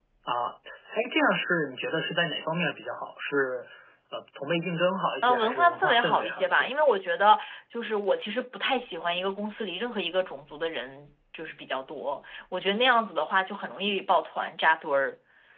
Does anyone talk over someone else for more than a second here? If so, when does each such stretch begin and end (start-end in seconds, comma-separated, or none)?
5.2-6.7